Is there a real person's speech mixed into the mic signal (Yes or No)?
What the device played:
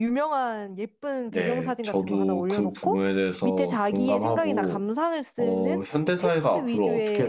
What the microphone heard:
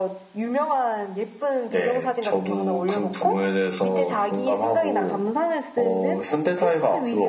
No